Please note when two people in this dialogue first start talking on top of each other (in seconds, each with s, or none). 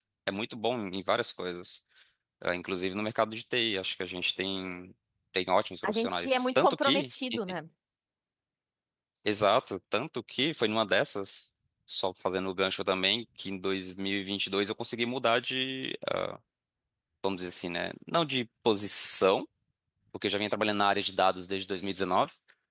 5.8 s